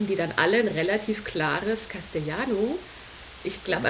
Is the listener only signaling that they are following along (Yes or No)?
Yes